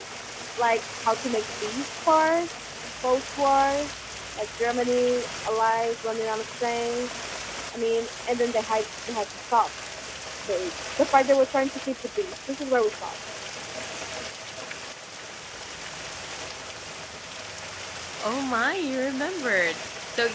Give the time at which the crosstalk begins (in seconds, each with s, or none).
none